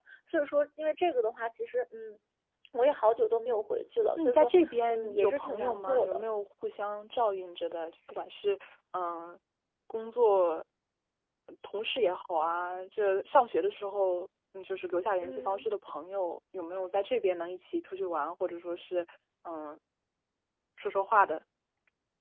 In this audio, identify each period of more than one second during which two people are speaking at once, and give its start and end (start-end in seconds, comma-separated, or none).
4.9-6.2